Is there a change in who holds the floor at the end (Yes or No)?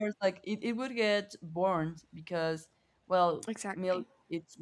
No